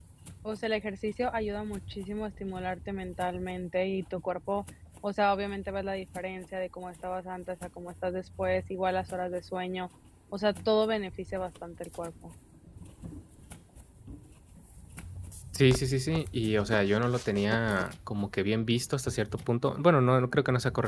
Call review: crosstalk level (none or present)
none